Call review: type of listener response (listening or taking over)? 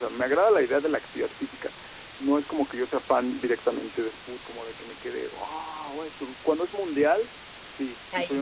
listening